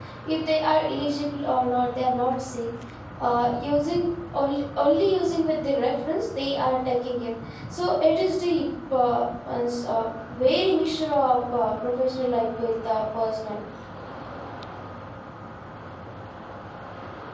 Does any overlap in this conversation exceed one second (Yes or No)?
No